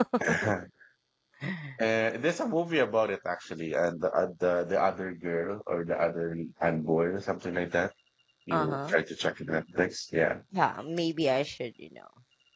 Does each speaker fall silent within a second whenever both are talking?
Yes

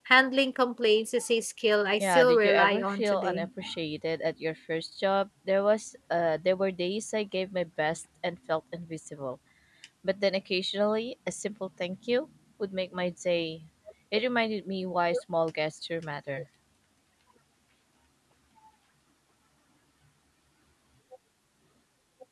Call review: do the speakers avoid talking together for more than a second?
No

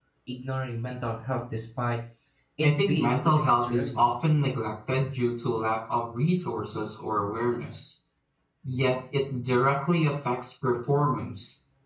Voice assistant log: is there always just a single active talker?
No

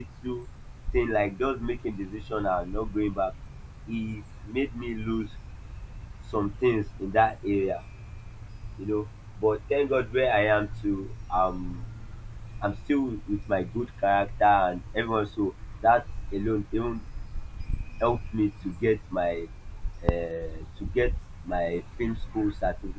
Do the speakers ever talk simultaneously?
No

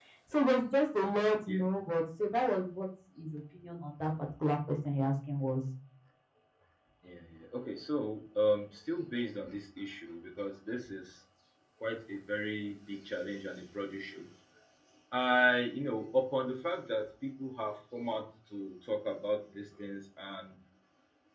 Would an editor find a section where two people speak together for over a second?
No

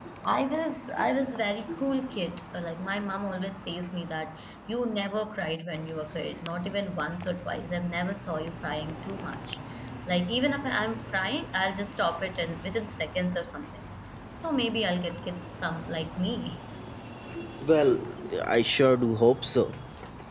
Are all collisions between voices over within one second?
Yes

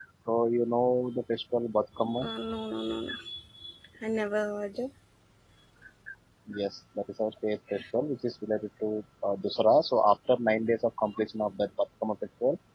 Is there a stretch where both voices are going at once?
No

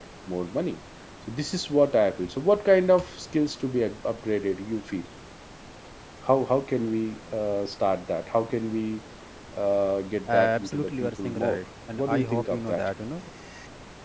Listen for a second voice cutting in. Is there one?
Yes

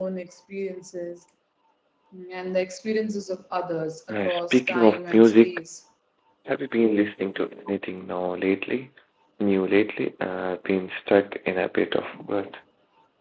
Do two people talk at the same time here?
Yes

